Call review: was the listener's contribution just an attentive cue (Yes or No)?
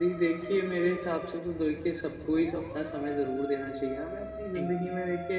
Yes